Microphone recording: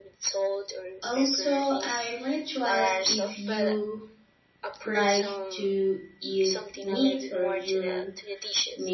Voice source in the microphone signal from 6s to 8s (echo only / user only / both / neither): both